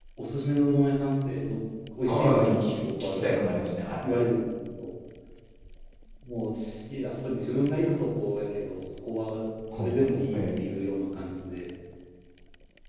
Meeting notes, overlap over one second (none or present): present